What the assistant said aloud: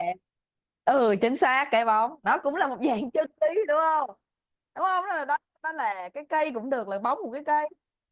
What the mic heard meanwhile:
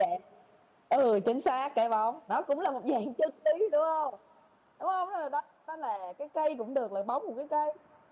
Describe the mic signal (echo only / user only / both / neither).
echo only